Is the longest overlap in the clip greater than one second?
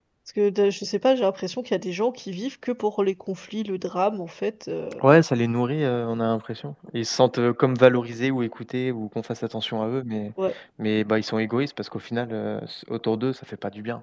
No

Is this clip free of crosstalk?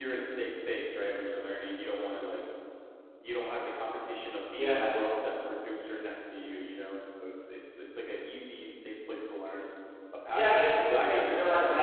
No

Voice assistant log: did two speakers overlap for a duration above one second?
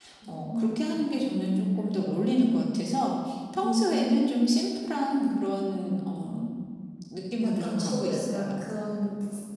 Yes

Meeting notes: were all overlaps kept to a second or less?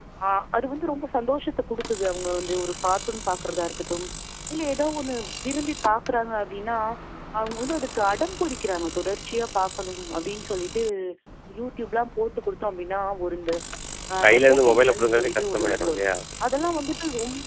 No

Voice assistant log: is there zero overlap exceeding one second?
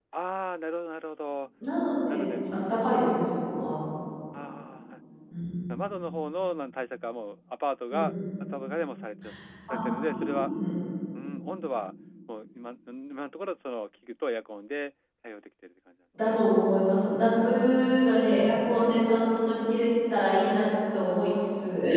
Yes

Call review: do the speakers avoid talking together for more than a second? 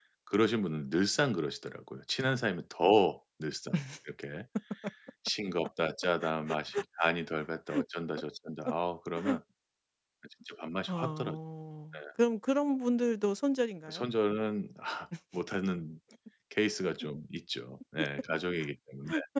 Yes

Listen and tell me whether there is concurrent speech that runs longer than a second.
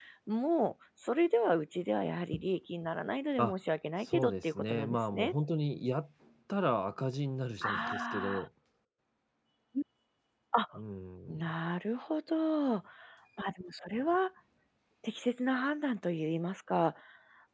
Yes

